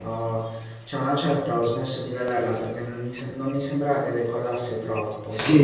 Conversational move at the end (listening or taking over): taking over